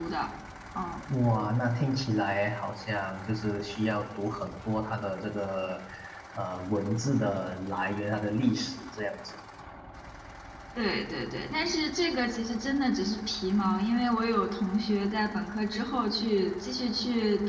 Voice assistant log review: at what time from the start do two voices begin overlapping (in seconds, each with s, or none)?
none